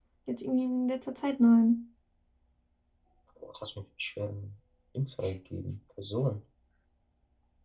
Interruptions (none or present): none